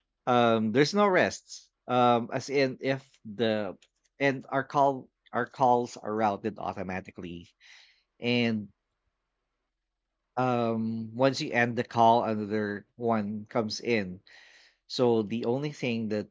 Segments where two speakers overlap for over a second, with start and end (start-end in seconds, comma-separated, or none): none